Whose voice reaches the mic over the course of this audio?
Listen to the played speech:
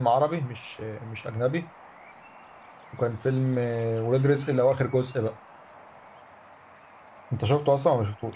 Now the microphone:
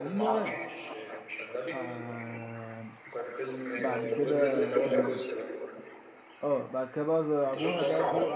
both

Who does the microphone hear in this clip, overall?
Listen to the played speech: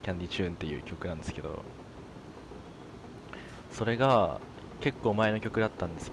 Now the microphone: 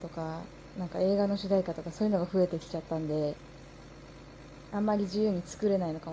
user only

